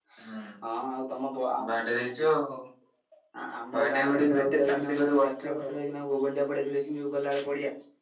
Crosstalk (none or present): present